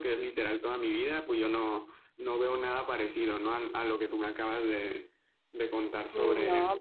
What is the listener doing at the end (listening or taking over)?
taking over